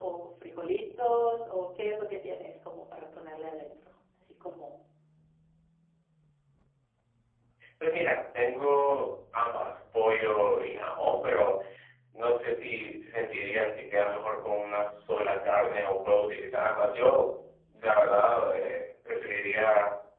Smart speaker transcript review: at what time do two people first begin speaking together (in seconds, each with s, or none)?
none